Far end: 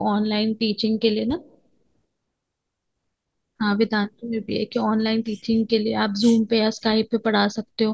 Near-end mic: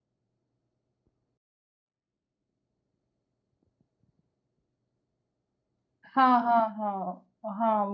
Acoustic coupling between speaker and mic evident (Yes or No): No